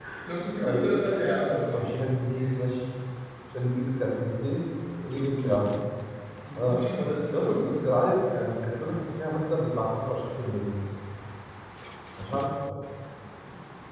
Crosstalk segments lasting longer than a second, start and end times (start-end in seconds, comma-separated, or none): none